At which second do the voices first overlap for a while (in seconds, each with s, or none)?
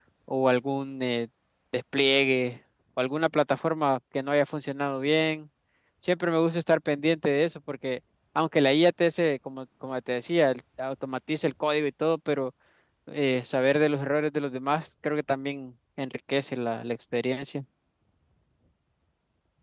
none